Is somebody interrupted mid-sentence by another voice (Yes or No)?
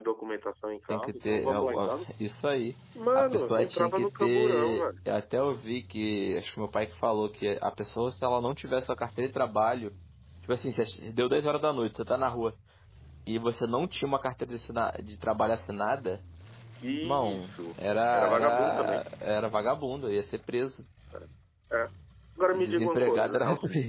Yes